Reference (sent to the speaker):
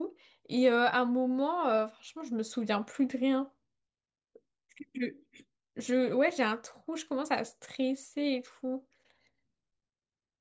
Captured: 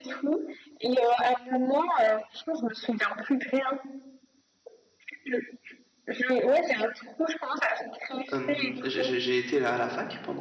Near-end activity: present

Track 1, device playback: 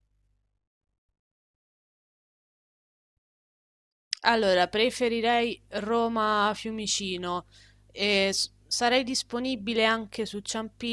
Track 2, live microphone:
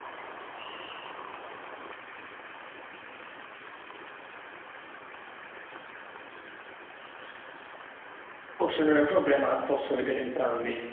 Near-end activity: present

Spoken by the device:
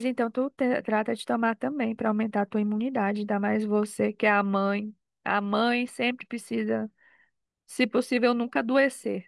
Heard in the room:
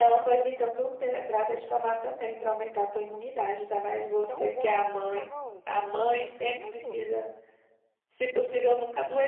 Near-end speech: present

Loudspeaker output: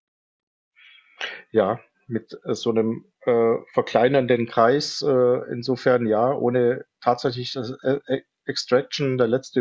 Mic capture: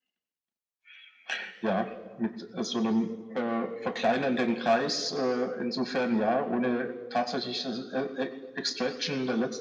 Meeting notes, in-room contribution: none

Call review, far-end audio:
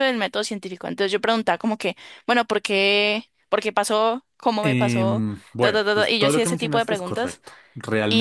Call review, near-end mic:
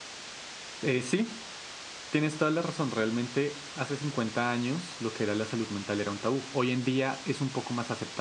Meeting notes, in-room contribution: present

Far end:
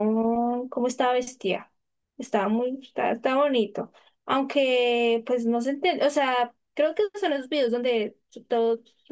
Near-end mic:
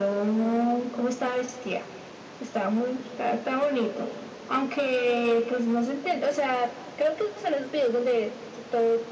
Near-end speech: none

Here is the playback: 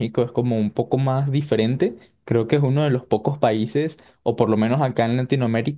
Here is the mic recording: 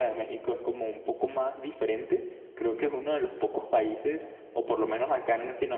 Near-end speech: none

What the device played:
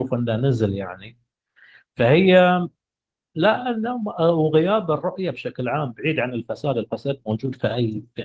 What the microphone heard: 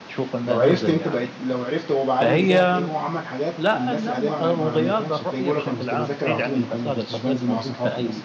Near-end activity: present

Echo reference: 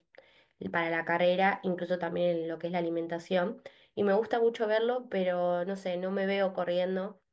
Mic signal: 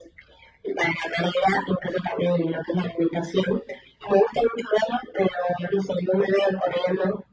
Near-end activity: none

